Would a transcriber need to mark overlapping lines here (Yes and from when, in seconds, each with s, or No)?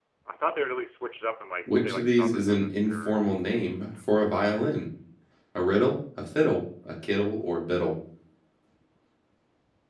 Yes, from 1.7 s